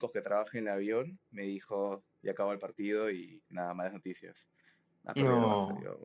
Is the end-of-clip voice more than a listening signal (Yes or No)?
No